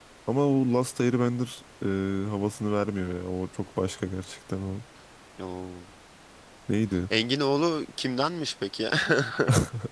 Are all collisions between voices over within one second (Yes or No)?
Yes